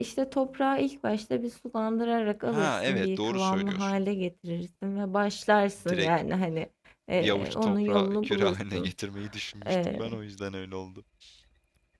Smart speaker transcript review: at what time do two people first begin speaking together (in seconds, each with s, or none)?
2.5 s